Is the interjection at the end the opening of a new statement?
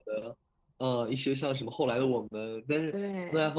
No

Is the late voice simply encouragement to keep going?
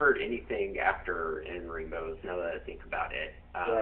No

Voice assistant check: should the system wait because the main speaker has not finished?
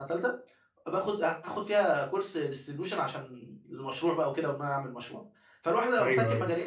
Yes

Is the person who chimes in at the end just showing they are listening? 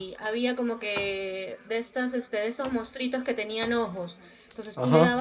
Yes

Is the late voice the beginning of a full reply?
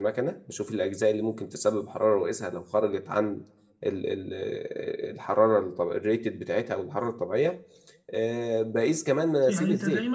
Yes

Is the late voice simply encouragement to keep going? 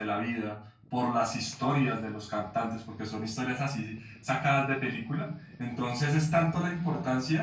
Yes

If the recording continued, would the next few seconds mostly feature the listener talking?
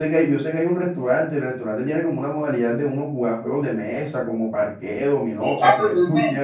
Yes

